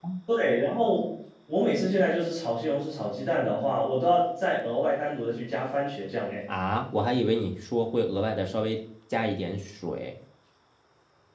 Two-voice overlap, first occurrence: none

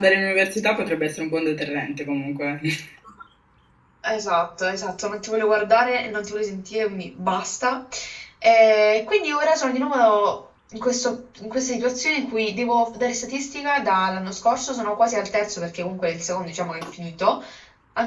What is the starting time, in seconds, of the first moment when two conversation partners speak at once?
none

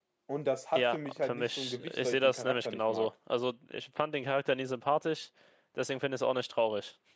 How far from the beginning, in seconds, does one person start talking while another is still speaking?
0.7 s

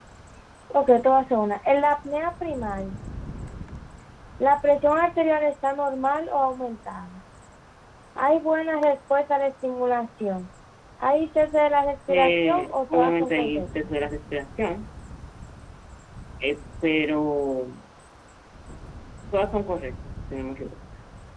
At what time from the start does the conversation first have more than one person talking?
12.1 s

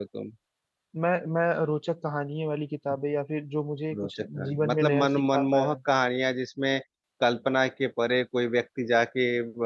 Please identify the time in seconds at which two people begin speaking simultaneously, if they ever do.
3.9 s

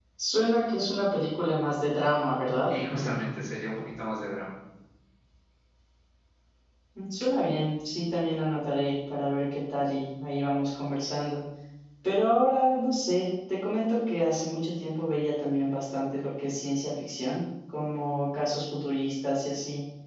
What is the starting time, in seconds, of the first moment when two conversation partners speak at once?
none

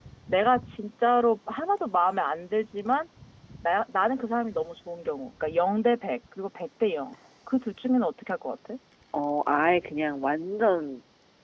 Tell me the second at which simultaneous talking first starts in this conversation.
none

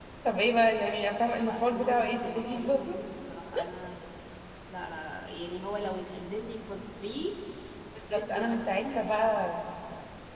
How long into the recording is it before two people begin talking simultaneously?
1.4 s

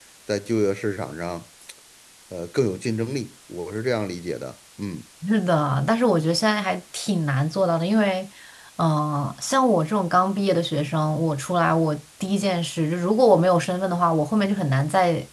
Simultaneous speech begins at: none

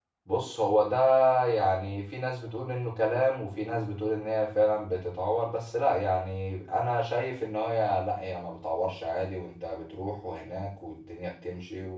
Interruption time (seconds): none

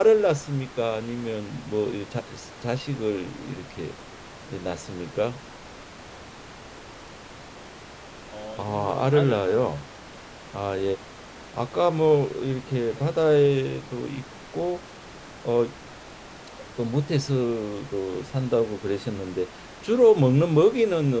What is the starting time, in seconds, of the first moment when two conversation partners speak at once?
8.6 s

